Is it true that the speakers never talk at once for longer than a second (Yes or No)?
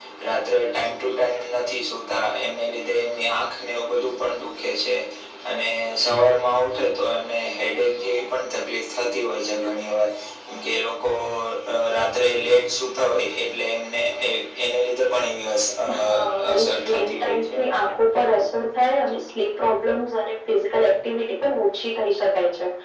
No